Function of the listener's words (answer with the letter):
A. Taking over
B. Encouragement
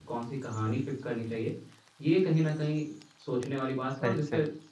B